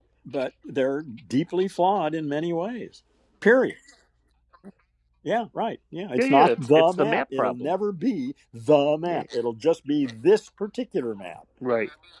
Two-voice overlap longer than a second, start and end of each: 6.2-7.7

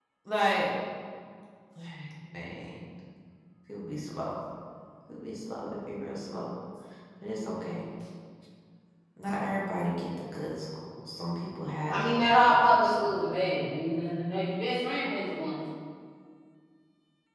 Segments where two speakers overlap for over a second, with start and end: 11.9-13.2

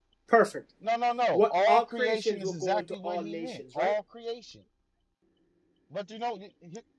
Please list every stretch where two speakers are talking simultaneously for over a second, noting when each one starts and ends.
1.3-3.9

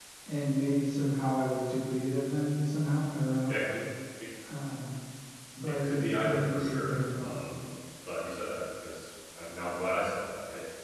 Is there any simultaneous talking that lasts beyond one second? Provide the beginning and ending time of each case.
5.8-7.4

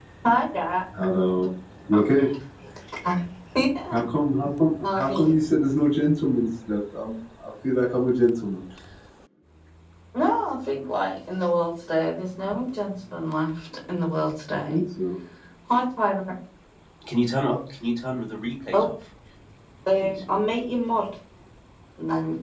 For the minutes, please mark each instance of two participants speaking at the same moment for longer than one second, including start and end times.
none

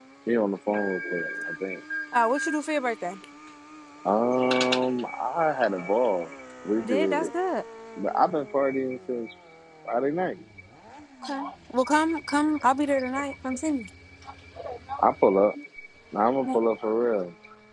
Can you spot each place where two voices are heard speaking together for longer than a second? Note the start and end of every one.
none

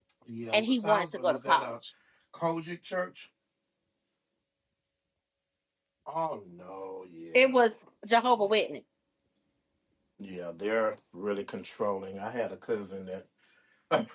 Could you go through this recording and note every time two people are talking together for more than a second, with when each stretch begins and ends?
0.5-1.7

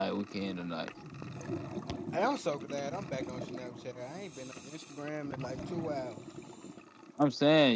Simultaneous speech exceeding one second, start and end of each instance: none

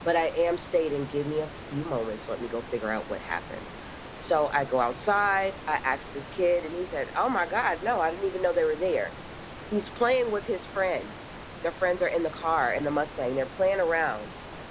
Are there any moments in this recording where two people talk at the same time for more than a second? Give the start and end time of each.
none

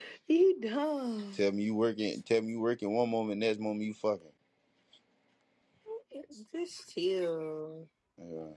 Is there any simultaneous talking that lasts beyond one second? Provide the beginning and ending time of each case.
none

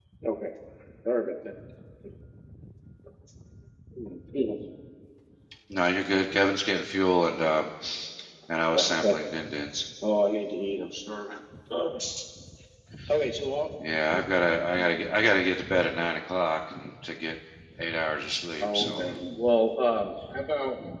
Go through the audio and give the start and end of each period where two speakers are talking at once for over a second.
none

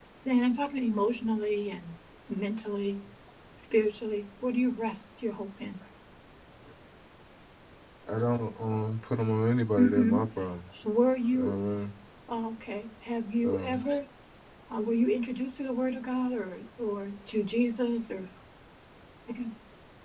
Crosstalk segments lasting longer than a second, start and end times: none

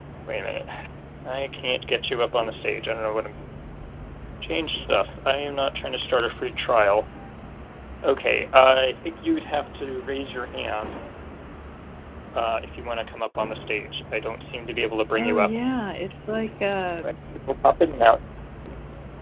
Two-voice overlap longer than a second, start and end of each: none

